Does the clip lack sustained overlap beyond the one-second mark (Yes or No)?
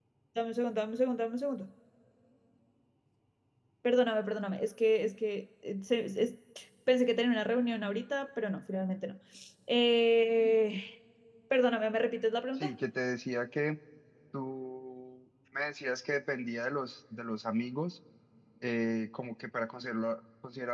Yes